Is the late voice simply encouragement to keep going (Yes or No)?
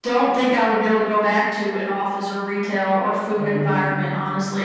Yes